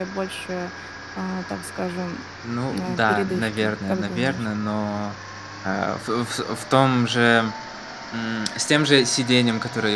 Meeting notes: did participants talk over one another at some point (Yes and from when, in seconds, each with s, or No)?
Yes, from 2.8 s